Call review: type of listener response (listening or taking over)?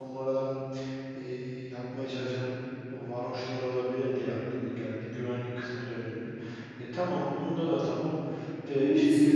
taking over